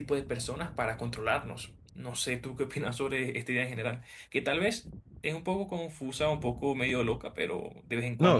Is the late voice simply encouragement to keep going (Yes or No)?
No